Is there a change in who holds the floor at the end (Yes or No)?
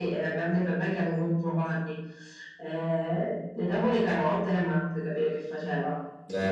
Yes